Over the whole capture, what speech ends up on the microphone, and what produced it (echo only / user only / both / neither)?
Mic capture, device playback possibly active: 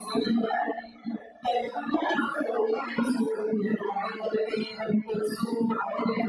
echo only